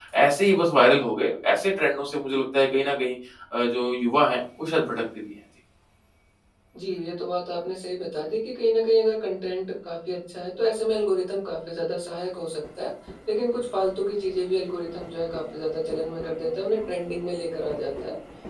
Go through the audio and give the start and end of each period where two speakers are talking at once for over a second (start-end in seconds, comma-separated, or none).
none